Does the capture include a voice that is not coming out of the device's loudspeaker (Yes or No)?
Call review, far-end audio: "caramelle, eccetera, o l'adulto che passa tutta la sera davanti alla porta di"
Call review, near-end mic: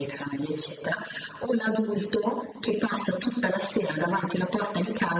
No